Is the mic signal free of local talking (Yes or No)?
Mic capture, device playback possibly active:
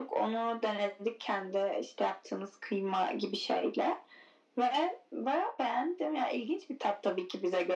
Yes